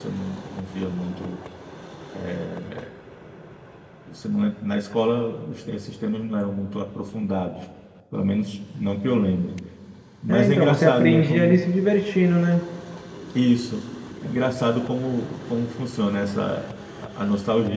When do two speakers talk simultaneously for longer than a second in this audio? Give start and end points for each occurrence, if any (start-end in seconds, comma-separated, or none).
10.3-11.6